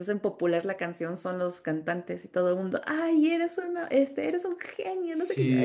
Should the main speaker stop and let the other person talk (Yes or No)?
Yes